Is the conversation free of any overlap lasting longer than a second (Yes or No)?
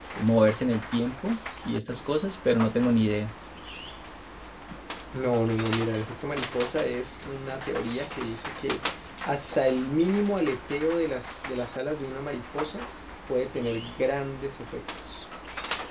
Yes